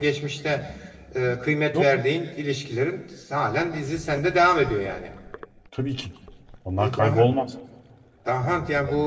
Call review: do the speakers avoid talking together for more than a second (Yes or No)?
Yes